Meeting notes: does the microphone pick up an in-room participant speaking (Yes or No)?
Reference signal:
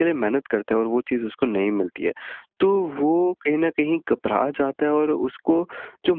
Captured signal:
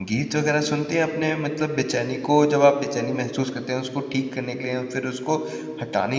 Yes